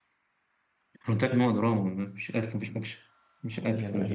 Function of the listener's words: taking over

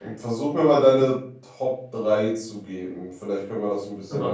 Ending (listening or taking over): taking over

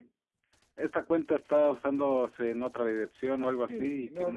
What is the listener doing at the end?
taking over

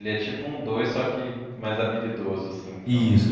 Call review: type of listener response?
taking over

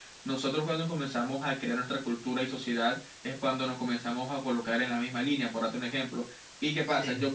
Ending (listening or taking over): listening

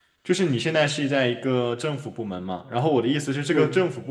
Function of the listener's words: listening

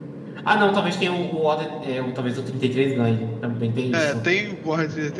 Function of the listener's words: taking over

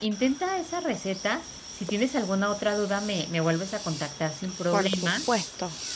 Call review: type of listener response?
taking over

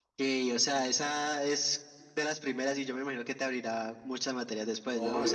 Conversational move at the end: taking over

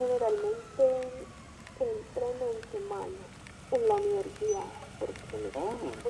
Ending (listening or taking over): listening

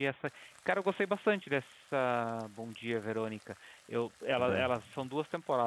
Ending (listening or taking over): listening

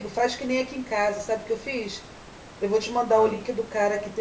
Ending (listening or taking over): listening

